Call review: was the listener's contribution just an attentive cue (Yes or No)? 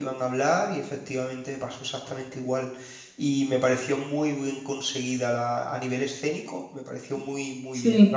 Yes